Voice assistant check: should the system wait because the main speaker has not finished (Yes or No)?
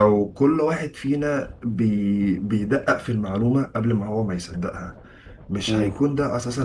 Yes